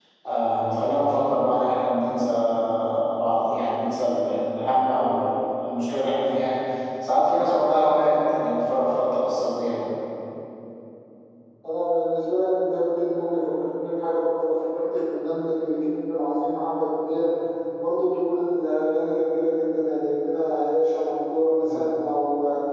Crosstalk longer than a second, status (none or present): none